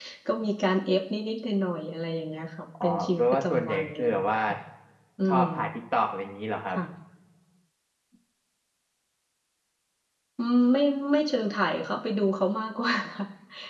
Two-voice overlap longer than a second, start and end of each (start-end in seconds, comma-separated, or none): 2.8-4.4